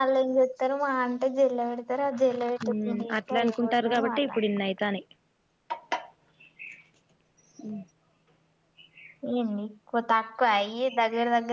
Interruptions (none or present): present